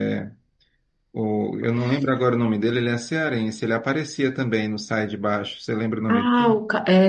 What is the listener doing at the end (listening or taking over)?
taking over